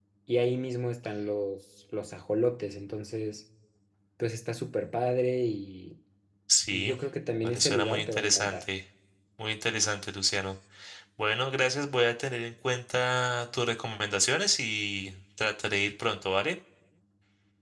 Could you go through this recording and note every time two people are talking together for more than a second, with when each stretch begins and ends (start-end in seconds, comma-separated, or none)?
7.4-8.7